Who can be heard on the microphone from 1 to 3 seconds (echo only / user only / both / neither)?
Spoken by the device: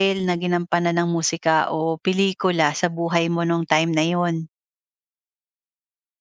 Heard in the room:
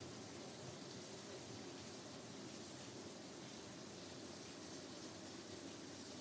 neither